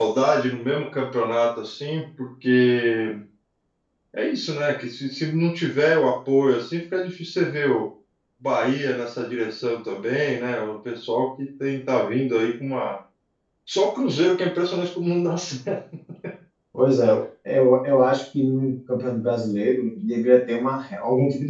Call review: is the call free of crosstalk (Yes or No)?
Yes